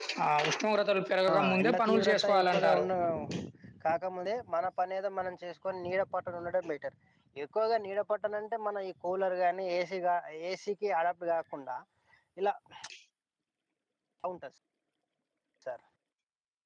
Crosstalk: present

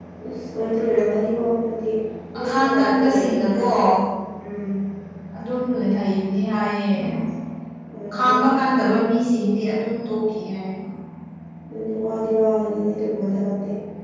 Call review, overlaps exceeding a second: present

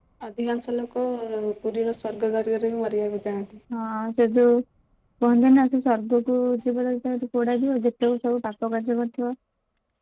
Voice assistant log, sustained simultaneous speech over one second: none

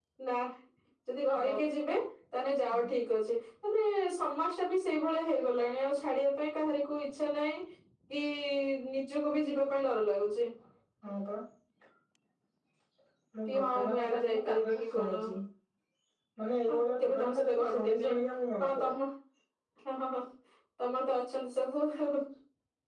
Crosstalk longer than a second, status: present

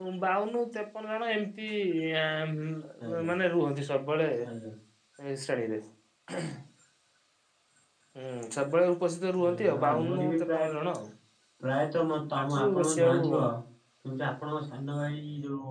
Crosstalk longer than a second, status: present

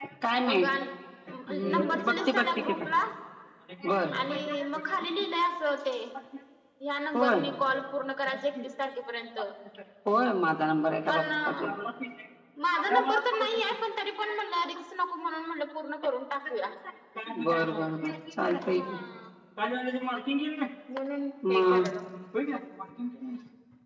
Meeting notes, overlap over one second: present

